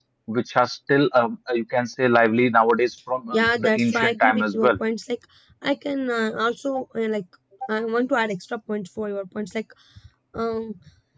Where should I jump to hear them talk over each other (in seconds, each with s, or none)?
3.3 s